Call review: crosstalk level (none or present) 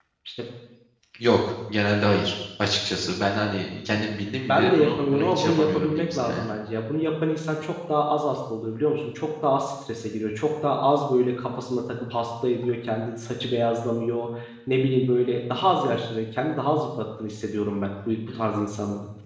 present